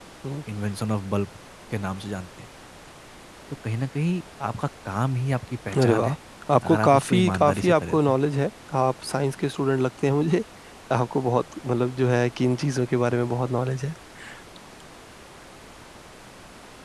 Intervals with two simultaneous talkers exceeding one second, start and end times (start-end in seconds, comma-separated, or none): 6.6-8.1